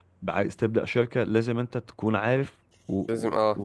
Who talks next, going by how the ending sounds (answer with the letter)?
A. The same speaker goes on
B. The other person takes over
A